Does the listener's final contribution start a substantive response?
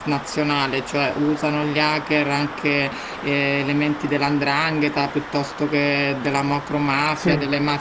No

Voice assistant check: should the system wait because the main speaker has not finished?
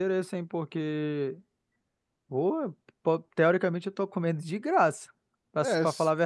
No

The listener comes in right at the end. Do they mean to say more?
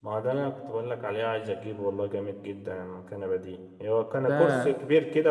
No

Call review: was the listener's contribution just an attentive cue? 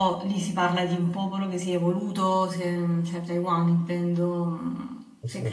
Yes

